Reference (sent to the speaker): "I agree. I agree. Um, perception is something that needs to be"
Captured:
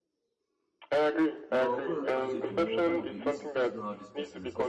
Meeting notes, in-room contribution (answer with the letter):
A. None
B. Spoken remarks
B